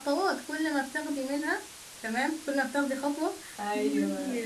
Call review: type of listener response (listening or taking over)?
listening